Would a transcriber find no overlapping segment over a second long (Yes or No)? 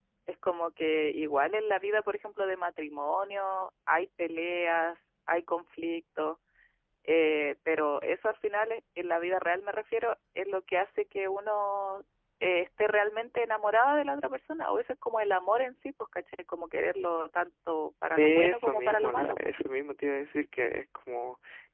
No